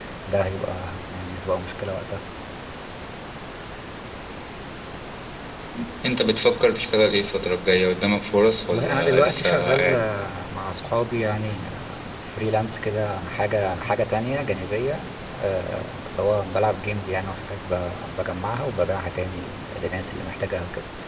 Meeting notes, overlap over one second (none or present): present